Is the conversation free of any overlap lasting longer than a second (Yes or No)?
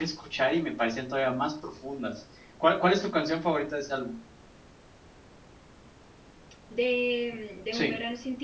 Yes